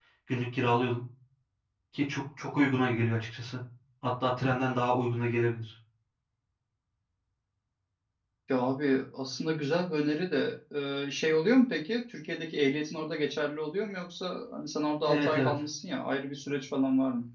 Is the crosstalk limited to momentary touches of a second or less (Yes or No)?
Yes